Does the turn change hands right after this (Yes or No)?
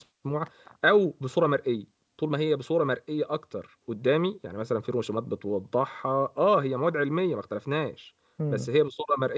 No